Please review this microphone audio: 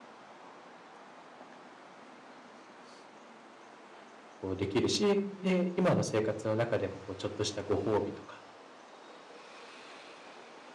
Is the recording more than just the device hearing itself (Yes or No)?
Yes